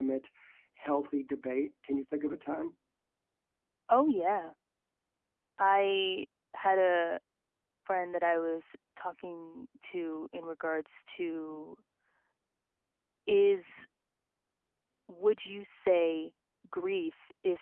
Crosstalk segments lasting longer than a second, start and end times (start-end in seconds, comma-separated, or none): none